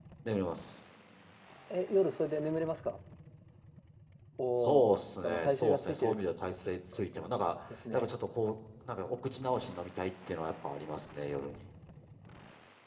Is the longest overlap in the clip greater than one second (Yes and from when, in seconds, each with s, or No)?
Yes, from 4.6 s